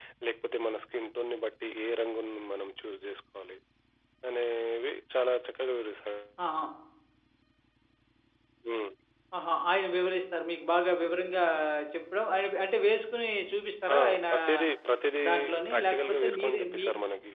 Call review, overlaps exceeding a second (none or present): present